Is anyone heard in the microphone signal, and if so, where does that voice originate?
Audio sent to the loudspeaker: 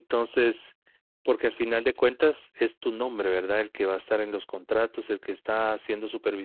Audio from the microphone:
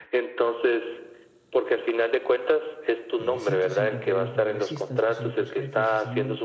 both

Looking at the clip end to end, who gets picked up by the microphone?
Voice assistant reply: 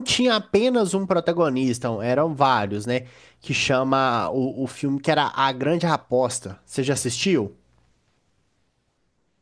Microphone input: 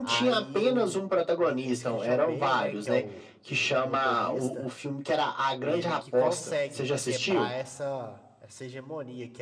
both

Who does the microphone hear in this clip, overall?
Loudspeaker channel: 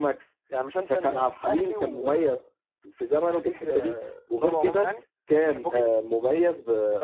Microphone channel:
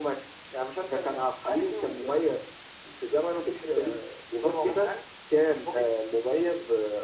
echo only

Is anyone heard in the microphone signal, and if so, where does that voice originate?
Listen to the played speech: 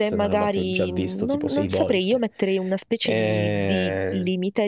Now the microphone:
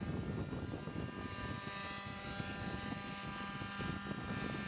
neither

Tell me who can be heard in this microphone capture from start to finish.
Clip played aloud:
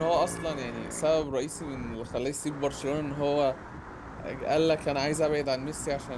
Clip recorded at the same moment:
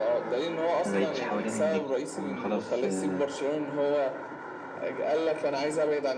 both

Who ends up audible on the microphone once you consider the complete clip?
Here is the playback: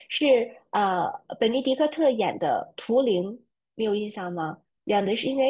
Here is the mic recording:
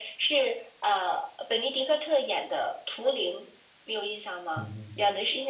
both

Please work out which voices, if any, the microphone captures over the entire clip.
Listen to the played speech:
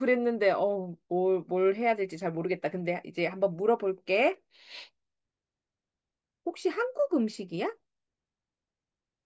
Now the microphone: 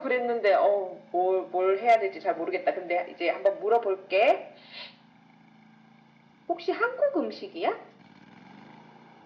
echo only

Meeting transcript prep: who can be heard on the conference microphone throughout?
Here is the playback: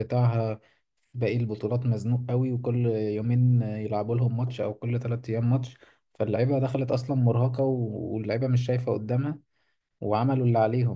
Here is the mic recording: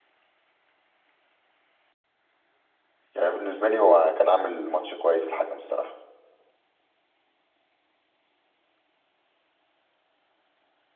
user only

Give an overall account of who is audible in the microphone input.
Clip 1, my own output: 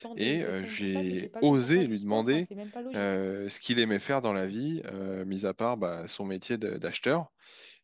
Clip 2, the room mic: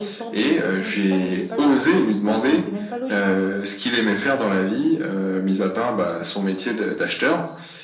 echo only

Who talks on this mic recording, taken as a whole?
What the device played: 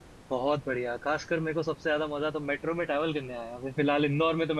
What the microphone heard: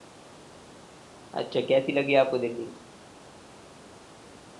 user only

